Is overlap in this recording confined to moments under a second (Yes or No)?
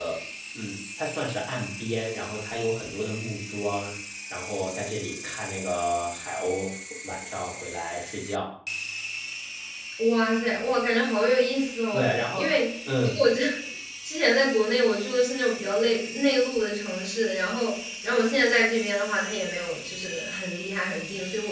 Yes